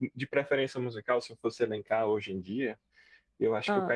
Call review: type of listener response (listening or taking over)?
listening